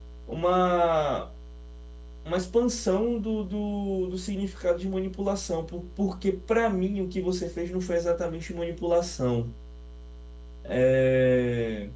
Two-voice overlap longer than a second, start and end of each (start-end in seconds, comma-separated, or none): none